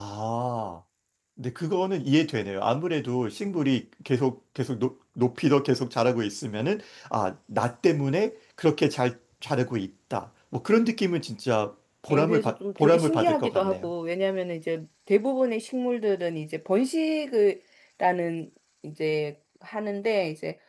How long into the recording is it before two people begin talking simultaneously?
12 s

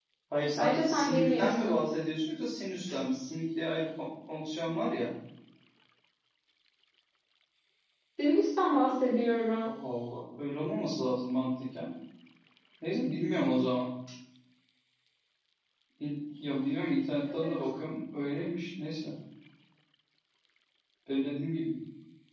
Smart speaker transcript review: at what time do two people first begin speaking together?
1 s

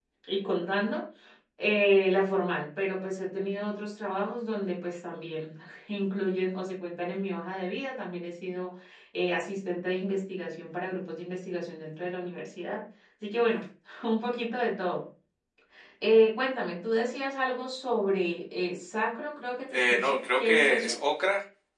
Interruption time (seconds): 20 s

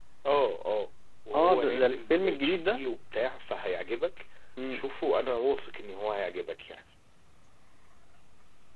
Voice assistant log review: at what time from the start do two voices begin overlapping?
1 s

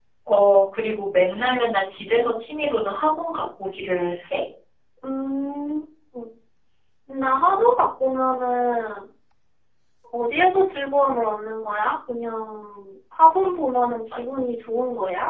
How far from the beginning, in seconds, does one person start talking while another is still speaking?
none

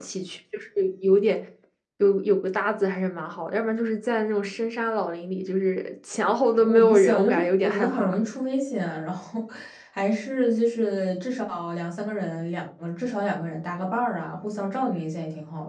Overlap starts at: 7 s

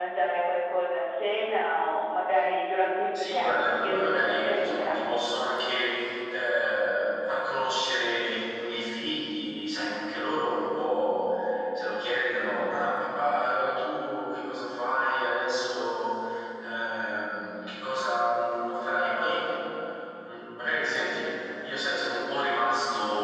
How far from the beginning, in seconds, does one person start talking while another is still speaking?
3 s

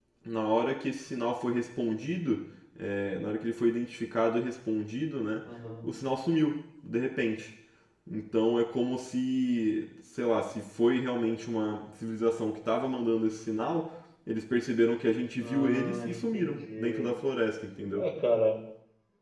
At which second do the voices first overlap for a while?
15 s

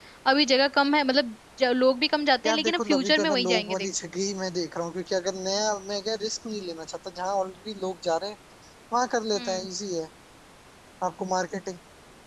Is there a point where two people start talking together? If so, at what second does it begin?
2 s

